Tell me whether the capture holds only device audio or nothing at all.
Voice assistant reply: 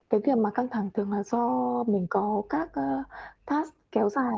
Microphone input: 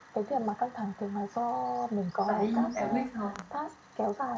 No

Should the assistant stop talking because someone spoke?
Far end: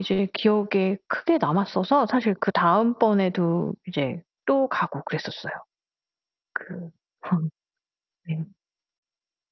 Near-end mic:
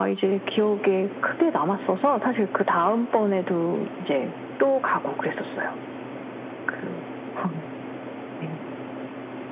No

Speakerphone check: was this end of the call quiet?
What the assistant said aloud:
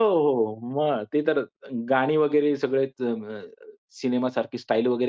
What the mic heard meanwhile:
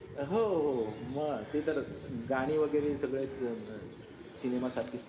Yes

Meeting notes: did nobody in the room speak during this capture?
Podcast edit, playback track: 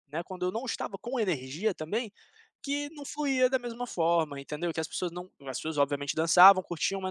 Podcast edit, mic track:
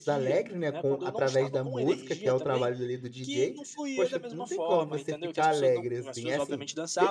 No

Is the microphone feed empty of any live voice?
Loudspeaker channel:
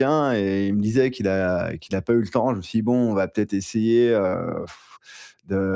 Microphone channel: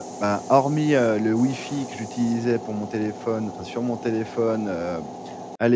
No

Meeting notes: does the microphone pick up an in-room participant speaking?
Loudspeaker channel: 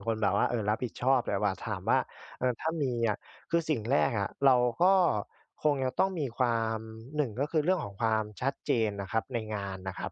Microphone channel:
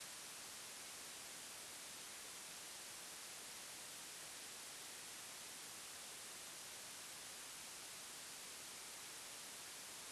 No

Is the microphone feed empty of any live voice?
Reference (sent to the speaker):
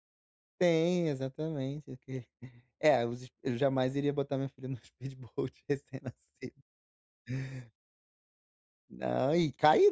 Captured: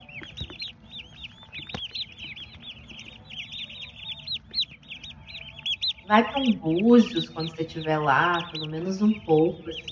No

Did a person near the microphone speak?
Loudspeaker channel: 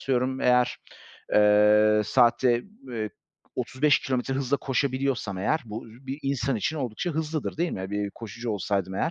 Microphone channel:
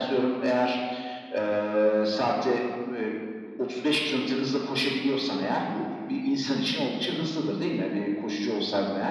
No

